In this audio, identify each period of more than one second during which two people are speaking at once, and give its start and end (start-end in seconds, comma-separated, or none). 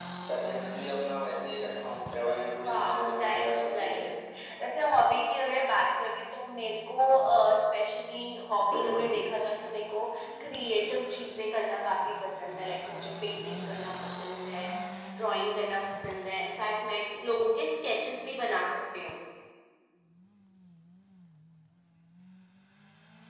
2.6-4.1